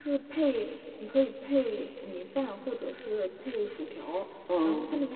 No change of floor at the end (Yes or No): Yes